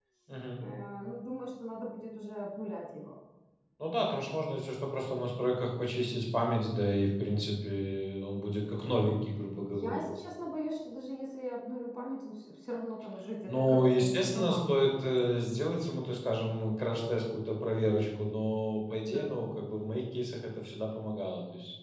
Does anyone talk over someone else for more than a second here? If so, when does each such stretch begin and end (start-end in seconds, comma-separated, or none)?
13.5-15.2